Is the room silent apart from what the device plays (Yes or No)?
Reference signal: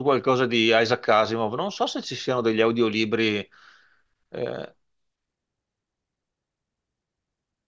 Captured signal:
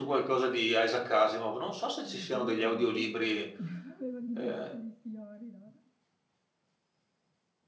No